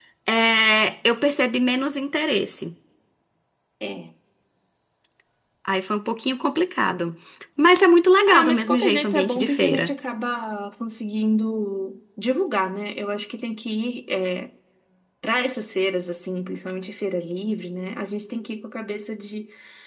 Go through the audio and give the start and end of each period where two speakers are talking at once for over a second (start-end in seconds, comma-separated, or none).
8.3-9.9